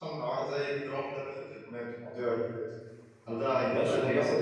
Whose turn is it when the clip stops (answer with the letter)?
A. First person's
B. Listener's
B